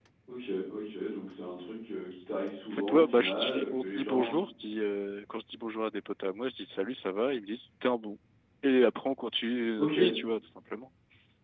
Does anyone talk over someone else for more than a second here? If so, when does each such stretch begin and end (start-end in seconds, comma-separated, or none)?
2.7-4.3